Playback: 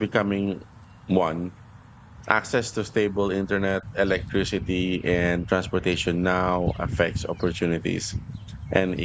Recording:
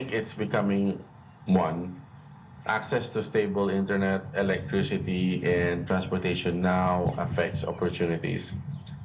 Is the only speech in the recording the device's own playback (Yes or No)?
Yes